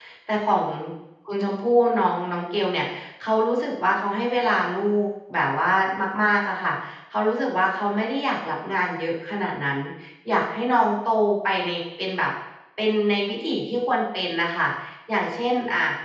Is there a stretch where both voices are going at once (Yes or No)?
No